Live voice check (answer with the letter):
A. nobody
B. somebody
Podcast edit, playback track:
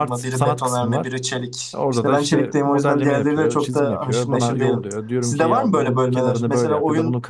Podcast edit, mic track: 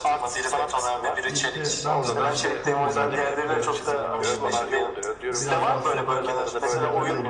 B